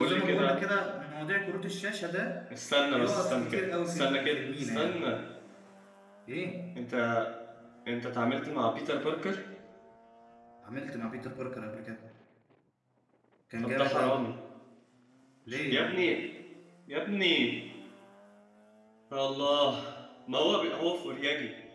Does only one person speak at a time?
No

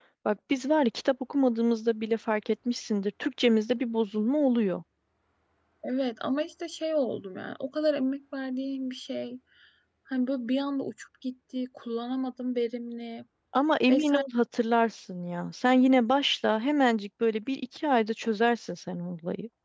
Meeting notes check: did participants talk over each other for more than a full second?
No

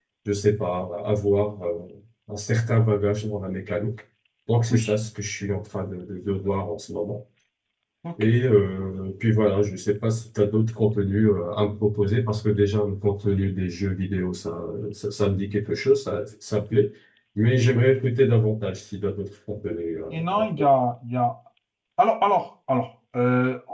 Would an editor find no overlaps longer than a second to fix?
Yes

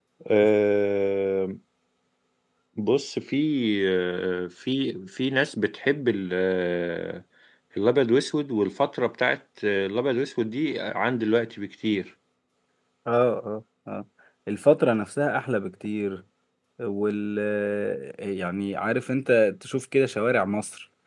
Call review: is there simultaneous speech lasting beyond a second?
No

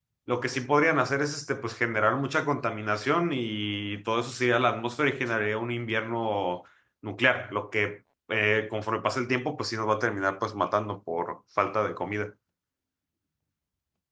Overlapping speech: No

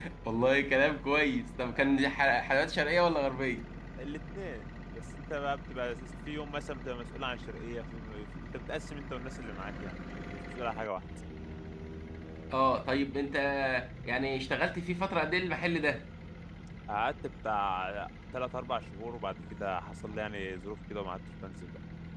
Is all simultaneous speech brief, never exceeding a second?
Yes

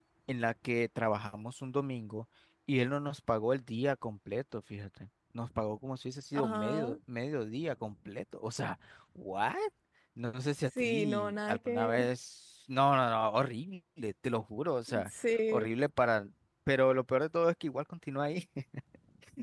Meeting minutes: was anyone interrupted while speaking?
Yes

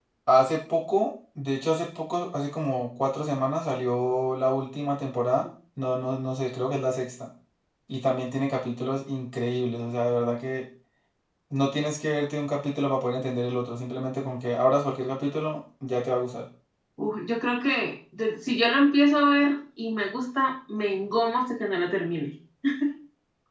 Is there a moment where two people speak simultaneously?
No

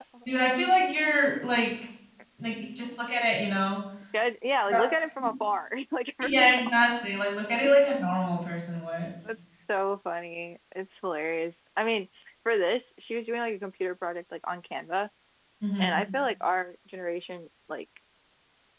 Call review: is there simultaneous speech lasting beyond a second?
No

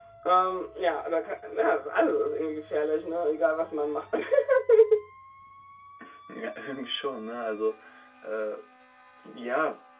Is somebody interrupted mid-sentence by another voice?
No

